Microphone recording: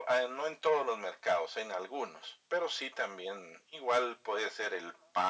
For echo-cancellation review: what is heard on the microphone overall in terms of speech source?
echo only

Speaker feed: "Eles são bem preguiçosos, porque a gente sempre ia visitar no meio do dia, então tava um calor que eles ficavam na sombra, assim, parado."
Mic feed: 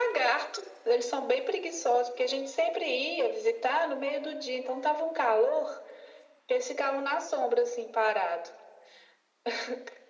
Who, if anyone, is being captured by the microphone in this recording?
echo only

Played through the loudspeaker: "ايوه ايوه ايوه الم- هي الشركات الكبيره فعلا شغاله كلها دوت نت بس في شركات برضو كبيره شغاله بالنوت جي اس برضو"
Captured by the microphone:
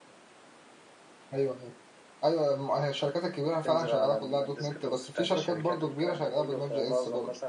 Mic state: both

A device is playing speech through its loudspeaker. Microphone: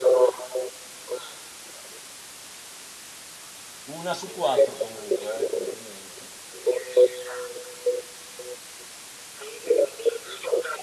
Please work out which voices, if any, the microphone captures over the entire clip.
both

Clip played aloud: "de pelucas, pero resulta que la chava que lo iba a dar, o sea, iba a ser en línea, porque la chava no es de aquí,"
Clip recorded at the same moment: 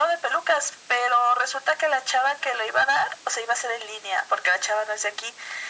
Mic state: echo only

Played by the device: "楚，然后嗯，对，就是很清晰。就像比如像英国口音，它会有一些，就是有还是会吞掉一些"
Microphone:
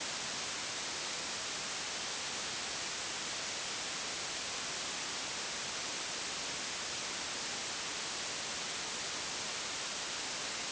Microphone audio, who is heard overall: neither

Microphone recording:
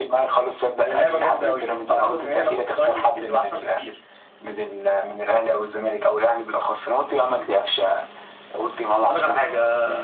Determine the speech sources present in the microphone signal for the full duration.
echo only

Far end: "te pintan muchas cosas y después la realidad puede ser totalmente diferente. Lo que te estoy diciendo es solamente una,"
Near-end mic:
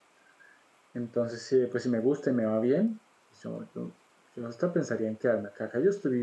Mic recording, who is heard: user only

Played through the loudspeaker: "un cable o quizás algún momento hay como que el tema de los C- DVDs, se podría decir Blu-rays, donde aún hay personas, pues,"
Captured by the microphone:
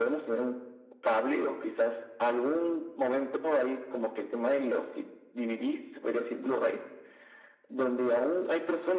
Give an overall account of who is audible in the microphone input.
echo only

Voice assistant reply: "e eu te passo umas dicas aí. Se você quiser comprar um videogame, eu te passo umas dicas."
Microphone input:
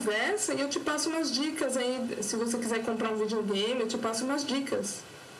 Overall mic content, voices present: echo only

